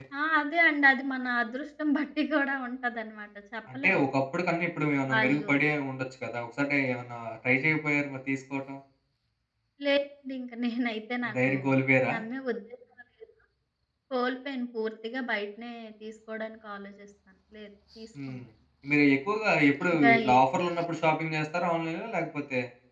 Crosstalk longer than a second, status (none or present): none